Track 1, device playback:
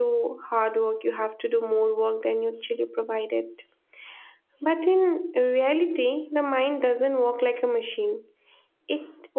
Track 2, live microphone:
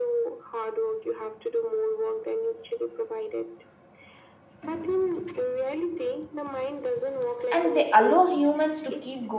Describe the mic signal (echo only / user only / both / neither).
both